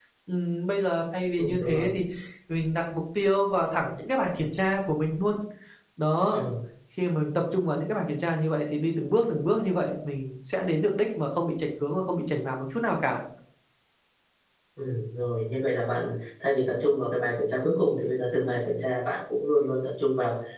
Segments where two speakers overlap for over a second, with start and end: none

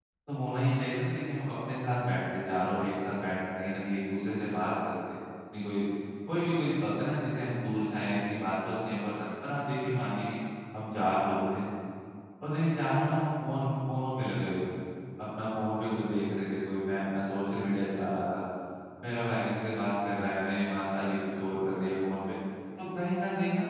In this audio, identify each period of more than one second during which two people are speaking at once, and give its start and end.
none

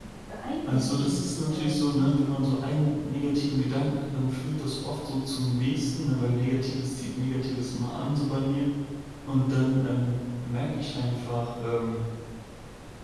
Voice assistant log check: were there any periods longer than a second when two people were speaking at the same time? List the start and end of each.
0.7-2.1

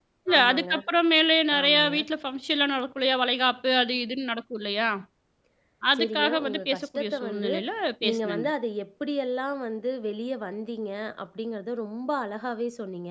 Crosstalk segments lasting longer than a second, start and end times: 6.0-7.5

